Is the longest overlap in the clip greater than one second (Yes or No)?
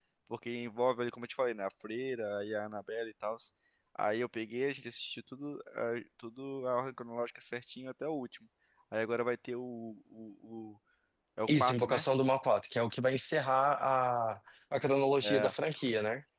No